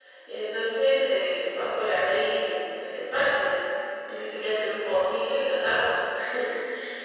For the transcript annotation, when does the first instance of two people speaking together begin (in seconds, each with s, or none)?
none